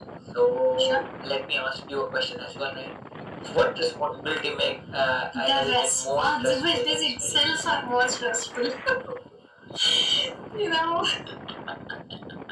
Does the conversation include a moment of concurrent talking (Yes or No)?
Yes